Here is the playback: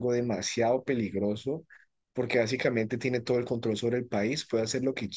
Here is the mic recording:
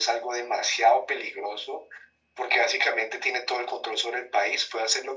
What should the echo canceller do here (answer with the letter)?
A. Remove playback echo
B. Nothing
A